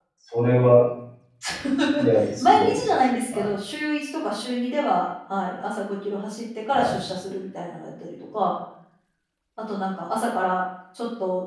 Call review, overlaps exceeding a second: none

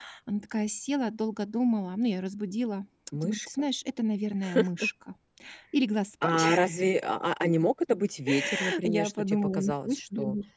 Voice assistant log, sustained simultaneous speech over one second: present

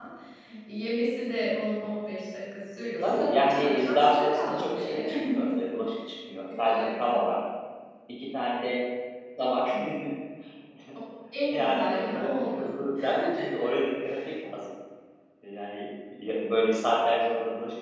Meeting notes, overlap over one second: present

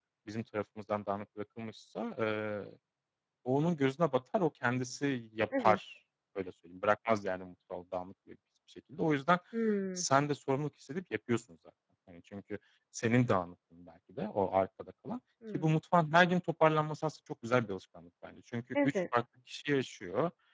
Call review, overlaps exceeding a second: none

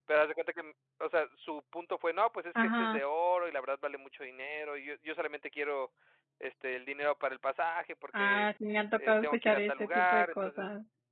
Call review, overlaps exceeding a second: present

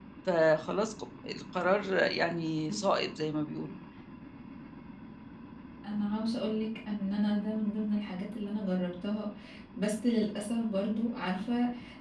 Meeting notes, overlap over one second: none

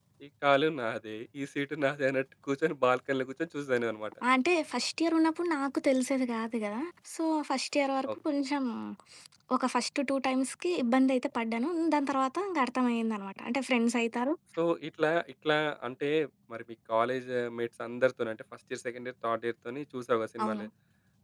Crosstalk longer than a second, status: none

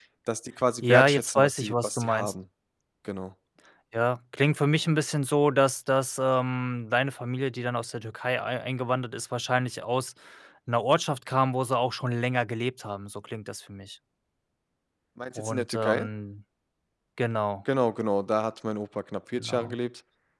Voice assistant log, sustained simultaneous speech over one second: present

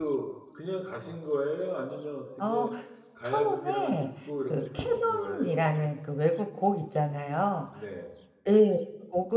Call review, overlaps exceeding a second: present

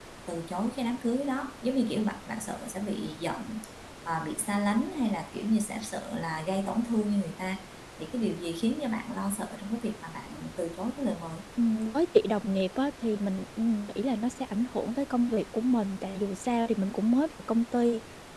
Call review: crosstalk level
none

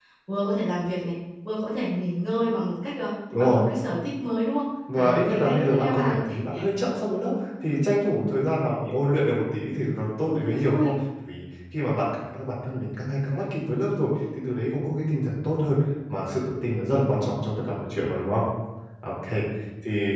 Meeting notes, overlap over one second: present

